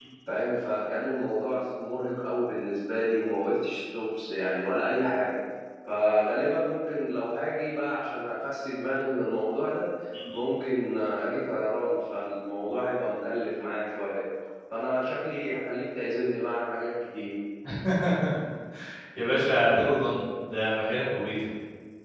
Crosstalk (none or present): none